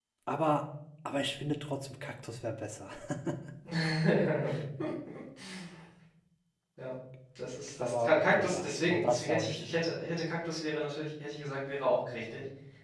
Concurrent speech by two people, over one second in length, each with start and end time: 7.8-9.8

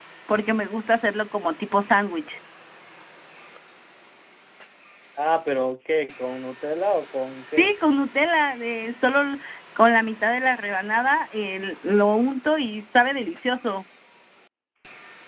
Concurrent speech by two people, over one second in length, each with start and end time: none

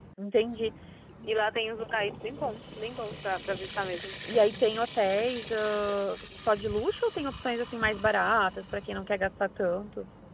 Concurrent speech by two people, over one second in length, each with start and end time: none

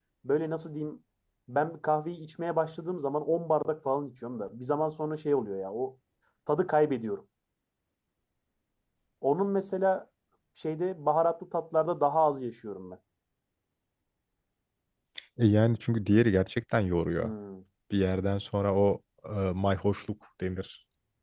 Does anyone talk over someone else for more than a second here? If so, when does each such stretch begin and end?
none

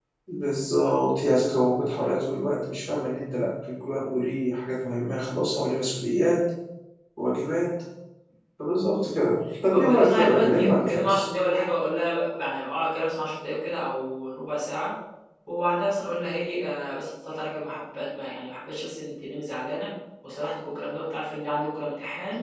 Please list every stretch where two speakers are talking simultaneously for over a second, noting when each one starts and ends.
9.7-11.3

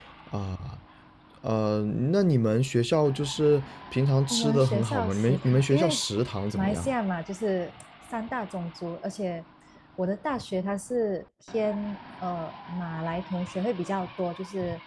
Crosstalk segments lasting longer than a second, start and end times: 4.3-6.0

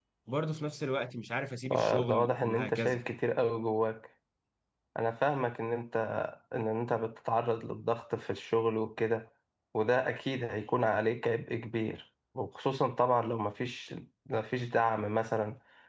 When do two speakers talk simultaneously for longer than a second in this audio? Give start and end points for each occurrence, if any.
1.7-3.0

